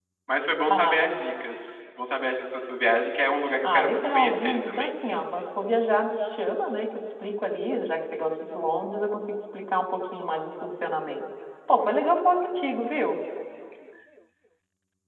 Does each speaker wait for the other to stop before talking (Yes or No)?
No